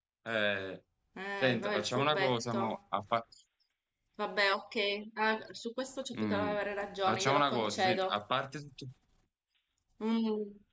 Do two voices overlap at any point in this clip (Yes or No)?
Yes